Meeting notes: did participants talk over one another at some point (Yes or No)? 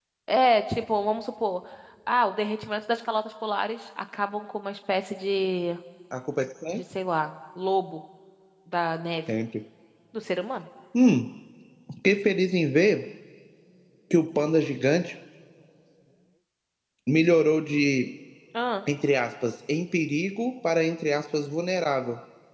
No